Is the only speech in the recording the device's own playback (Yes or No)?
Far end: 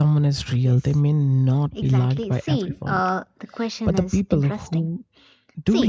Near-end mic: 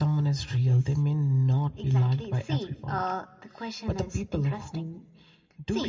Yes